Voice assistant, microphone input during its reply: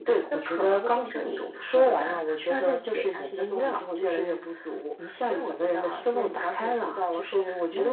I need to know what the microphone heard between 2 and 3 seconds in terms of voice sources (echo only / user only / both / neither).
echo only